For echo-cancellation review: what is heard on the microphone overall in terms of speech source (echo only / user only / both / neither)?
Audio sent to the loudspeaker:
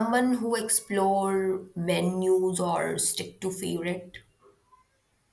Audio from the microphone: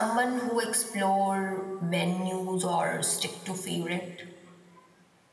echo only